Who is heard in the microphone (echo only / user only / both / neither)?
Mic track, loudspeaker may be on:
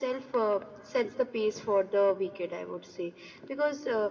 echo only